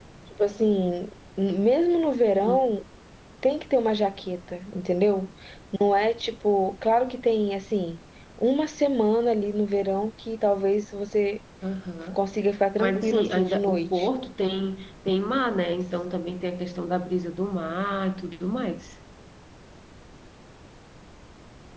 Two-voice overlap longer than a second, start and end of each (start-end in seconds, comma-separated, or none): 12.8-14.1